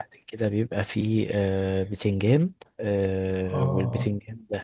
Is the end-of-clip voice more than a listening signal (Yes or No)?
No